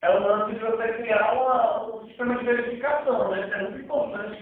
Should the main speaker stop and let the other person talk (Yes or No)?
No